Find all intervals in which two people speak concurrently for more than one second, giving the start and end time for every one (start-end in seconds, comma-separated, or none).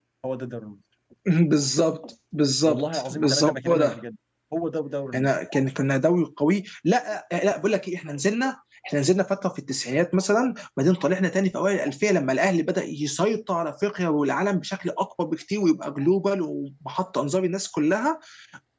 2.6-4.0